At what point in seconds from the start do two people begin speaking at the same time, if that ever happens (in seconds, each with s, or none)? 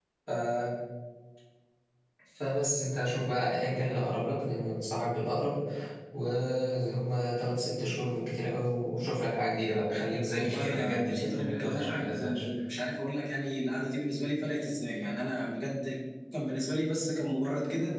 10.4 s